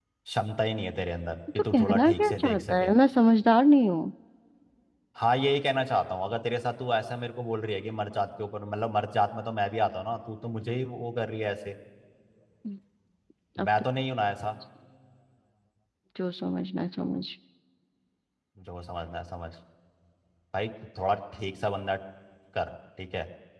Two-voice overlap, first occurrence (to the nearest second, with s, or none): 1 s